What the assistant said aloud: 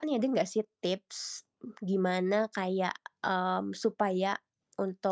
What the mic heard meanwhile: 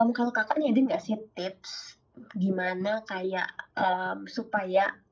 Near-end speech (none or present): none